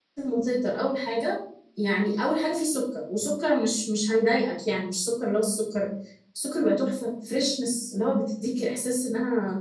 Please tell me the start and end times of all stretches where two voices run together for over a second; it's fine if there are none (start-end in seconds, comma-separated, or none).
none